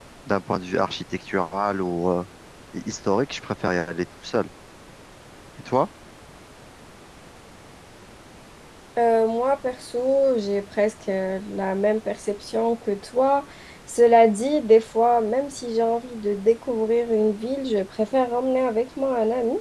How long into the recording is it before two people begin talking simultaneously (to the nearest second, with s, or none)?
none